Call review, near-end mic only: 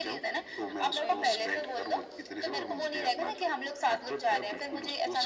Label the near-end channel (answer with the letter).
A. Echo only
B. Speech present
B